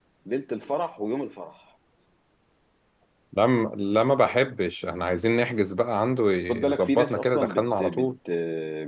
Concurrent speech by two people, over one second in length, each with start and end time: 6.5-8.1

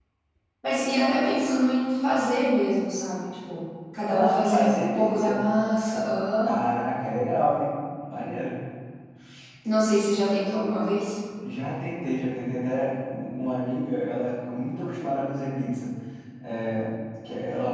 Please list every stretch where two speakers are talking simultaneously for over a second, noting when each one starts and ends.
4.1-5.4

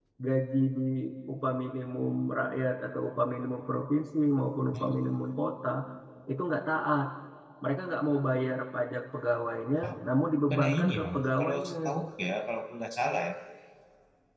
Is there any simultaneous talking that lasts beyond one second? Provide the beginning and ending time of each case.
10.5-11.8

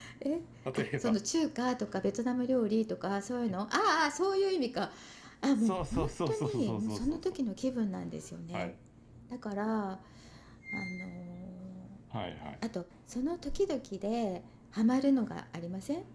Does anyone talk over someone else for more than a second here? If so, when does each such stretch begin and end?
5.6-7.2

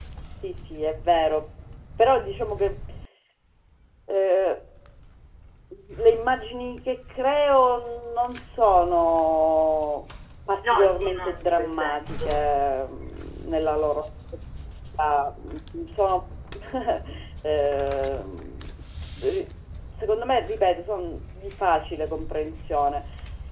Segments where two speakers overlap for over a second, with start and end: 10.6-12.4

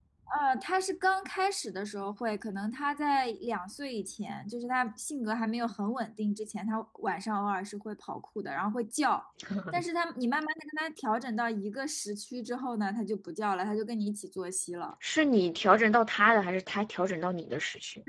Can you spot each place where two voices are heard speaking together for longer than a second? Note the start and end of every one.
none

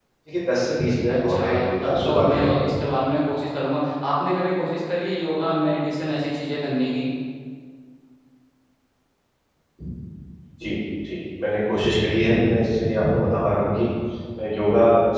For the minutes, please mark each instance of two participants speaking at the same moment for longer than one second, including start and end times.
1.1-2.7

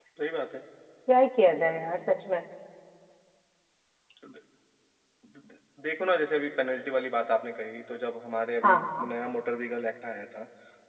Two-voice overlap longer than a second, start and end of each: none

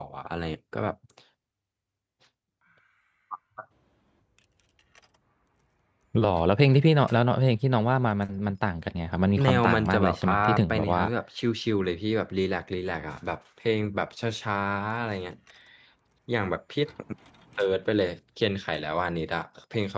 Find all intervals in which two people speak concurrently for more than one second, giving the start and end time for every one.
9.4-11.0

